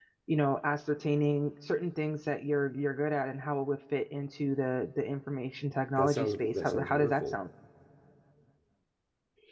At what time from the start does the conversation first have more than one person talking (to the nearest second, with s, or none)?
6 s